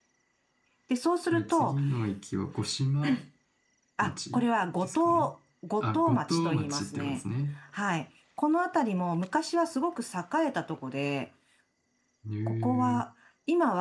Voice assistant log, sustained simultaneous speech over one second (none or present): present